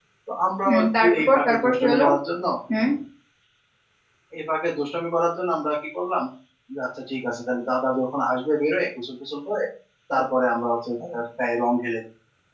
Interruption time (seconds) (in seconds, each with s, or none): 0.7 s